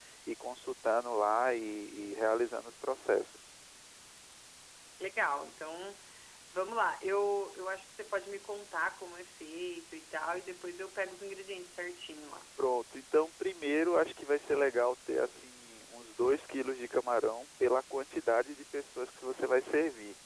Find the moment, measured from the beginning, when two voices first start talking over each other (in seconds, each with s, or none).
none